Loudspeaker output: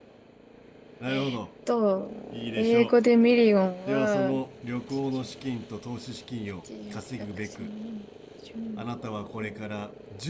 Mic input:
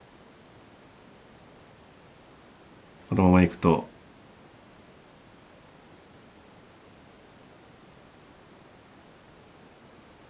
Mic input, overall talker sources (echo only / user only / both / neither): user only